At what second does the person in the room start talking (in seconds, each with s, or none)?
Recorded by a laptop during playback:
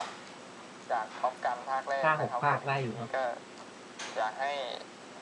2.0 s